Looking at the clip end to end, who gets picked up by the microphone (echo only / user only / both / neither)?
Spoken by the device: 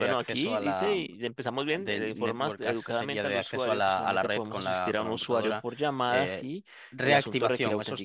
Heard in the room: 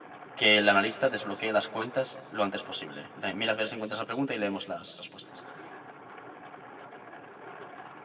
user only